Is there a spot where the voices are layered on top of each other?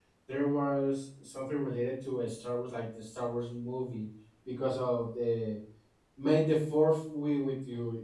No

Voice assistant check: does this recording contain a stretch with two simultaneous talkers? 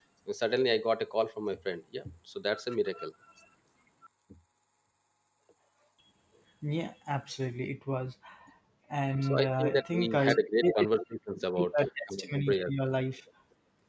Yes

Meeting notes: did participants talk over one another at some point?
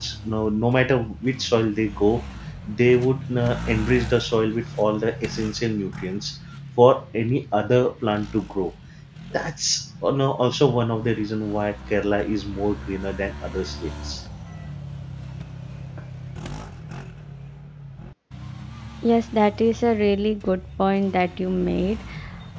No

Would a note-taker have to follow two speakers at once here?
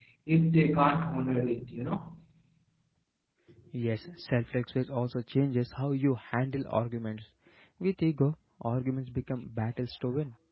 No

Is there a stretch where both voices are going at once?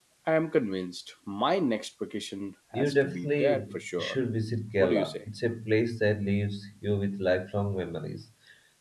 Yes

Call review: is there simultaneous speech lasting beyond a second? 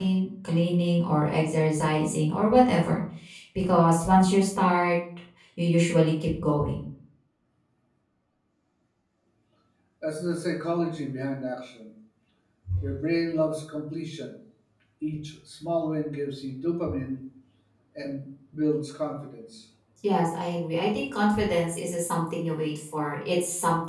No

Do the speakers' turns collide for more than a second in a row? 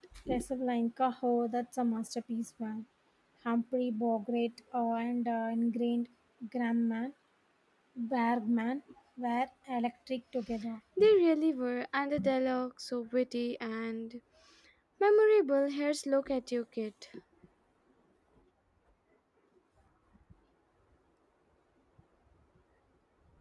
No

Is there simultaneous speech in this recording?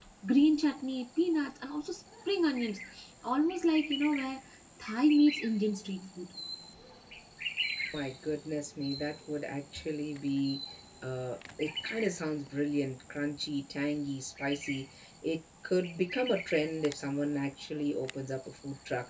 No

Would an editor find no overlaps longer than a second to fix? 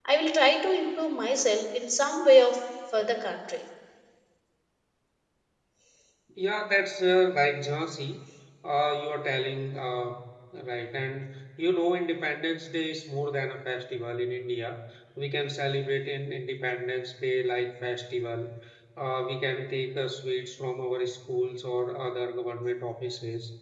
Yes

